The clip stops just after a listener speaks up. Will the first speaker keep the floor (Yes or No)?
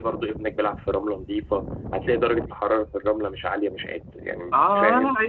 No